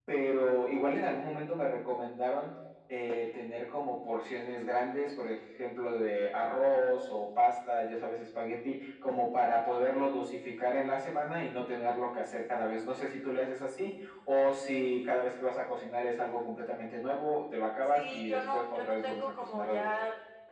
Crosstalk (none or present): present